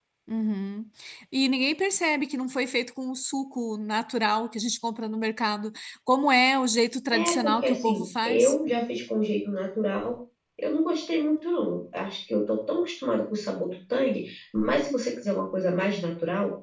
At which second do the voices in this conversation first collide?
7.1 s

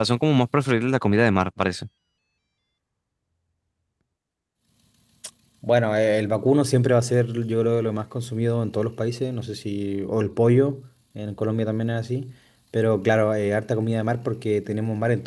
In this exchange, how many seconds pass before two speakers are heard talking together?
none

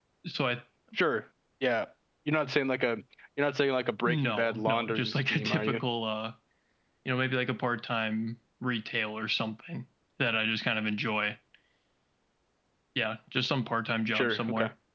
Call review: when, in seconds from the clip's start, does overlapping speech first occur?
4.0 s

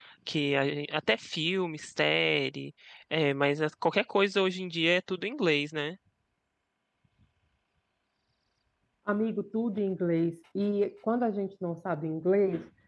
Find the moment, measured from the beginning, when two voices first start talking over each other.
none

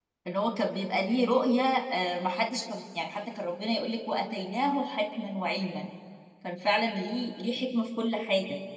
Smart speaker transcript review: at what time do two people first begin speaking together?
none

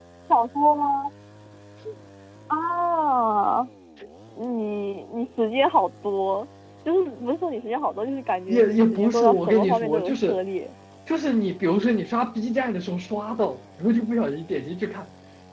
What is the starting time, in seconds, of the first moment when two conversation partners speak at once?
8.5 s

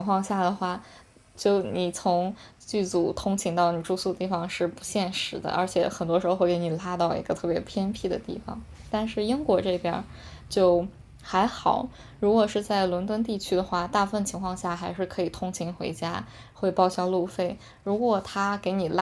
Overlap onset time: none

